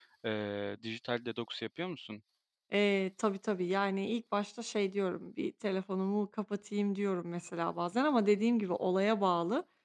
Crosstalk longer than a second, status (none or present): none